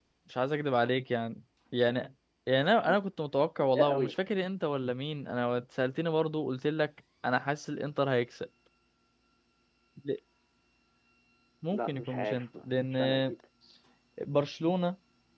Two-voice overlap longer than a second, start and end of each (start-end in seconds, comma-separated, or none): 11.7-13.3